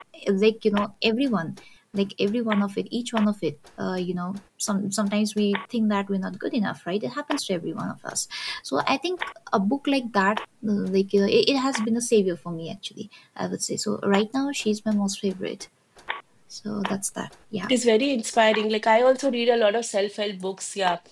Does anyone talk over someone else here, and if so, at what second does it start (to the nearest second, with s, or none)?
none